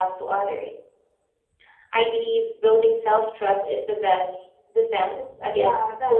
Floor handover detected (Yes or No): Yes